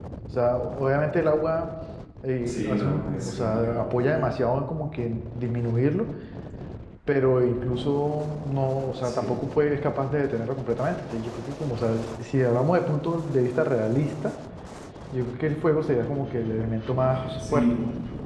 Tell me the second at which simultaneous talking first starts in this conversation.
2 s

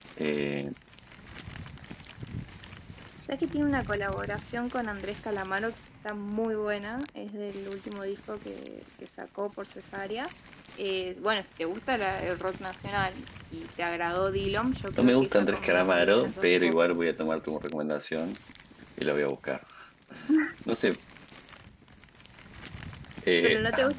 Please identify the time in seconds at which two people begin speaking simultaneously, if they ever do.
15 s

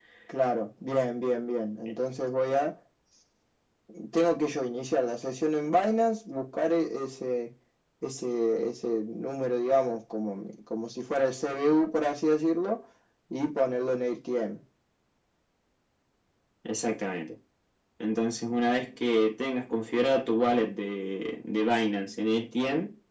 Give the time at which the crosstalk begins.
none

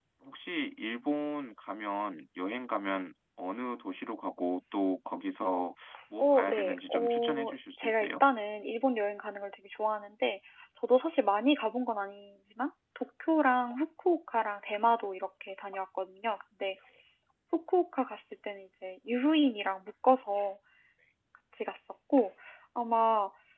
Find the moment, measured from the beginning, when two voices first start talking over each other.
6 s

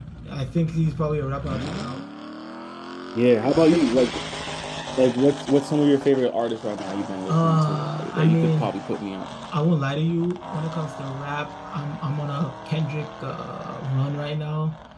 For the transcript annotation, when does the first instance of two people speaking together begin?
7 s

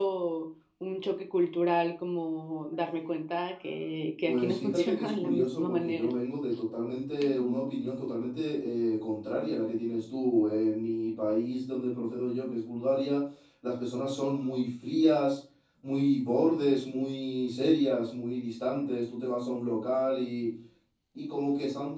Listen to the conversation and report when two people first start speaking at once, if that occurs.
4 s

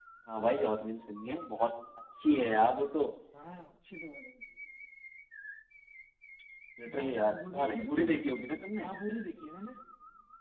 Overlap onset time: 7 s

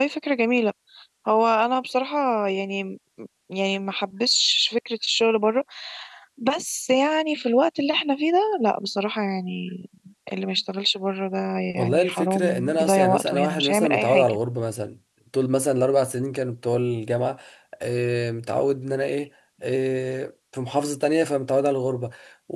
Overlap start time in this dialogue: 12 s

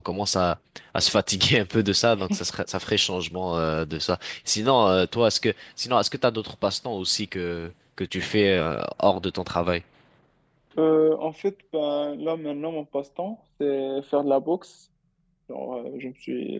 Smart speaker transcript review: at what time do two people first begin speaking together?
none

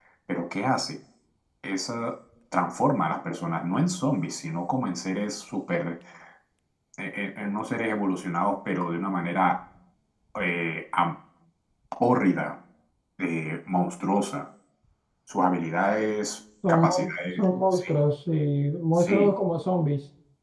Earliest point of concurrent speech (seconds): 17 s

